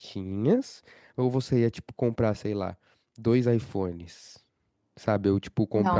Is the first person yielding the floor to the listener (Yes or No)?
Yes